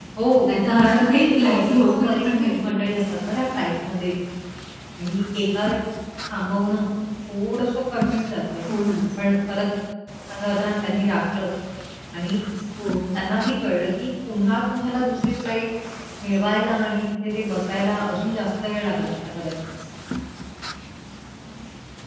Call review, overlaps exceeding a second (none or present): present